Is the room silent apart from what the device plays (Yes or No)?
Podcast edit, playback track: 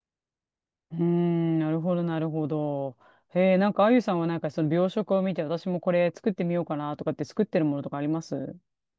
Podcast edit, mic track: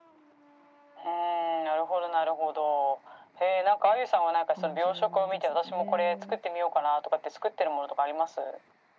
No